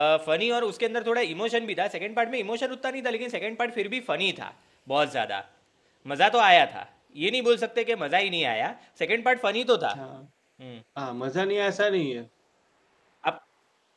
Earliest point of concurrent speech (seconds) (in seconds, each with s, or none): none